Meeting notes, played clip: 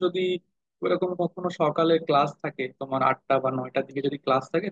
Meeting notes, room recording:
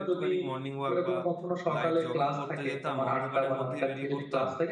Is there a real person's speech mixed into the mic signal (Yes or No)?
Yes